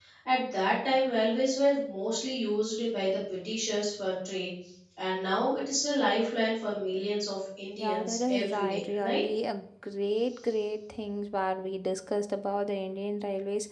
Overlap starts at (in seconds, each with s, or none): 7.8 s